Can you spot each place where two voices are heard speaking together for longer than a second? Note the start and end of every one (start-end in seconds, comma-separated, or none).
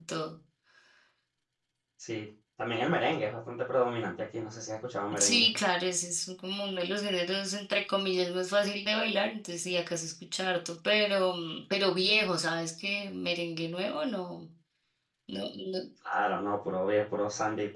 none